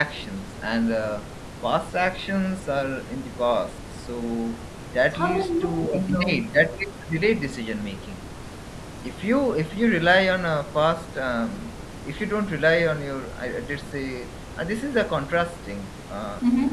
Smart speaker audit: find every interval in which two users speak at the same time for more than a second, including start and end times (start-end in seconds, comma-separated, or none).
5.1-6.4